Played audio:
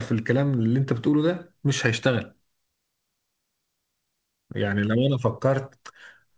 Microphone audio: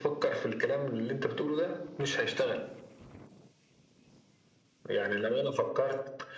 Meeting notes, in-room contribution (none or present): none